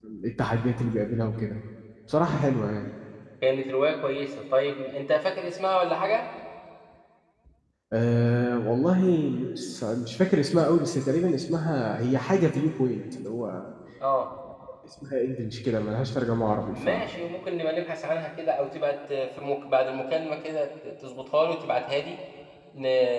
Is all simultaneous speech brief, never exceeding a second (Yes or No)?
Yes